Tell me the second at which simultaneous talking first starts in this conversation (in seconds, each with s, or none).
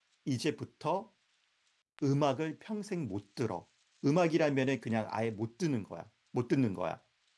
none